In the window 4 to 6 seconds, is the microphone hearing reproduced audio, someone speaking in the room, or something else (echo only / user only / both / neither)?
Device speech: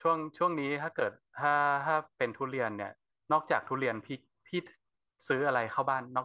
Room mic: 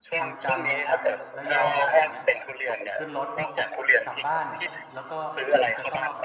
both